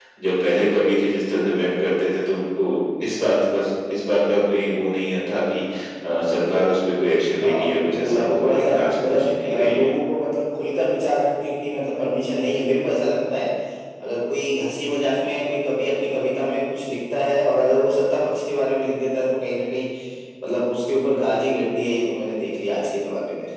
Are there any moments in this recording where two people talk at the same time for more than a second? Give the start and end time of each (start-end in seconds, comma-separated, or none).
7.4-9.9